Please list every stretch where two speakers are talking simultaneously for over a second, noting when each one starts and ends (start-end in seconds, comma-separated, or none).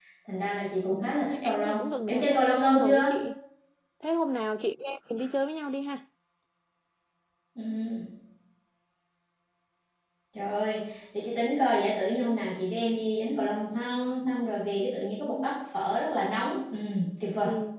1.0-3.0